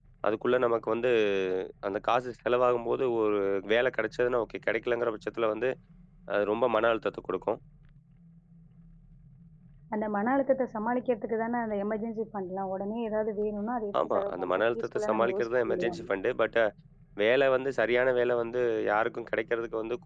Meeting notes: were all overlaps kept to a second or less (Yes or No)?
No